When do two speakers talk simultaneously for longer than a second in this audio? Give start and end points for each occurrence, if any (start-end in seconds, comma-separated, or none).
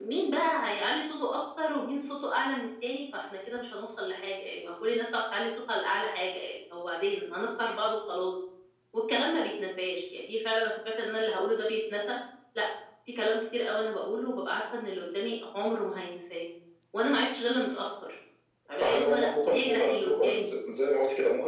18.8-20.6